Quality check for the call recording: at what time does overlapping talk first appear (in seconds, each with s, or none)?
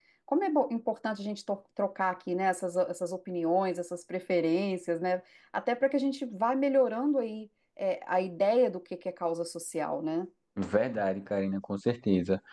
none